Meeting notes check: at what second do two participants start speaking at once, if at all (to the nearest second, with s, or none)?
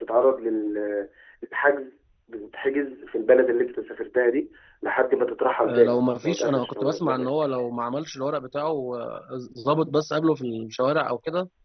6 s